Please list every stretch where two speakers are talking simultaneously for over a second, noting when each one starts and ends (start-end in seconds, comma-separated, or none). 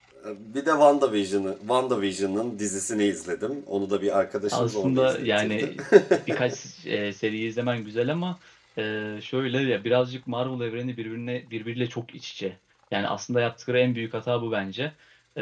4.5-5.7